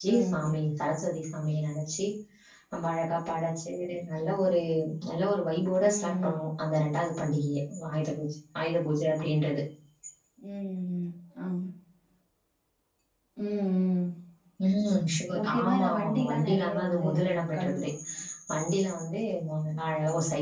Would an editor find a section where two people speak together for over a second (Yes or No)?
Yes